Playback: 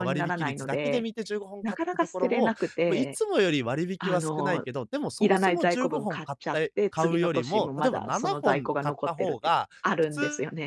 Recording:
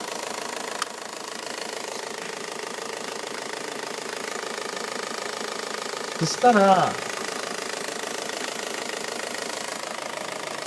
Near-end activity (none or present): present